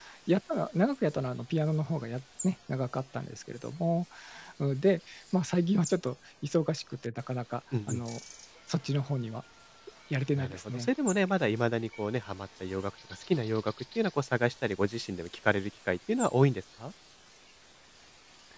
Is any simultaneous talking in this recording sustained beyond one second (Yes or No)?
No